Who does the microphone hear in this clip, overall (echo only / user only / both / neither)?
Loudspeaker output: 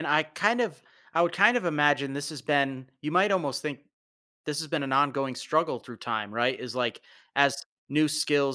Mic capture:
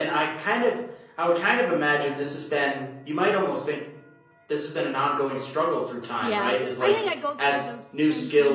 both